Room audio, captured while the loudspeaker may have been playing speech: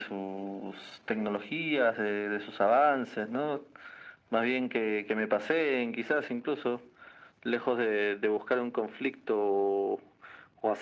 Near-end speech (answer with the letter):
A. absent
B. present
A